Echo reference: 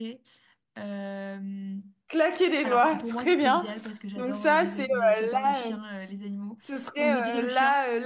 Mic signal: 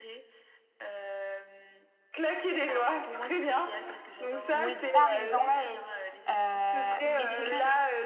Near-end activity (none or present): present